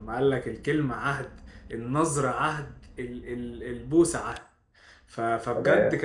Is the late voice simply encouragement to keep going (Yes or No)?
Yes